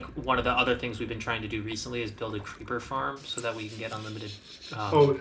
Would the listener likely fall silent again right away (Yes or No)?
No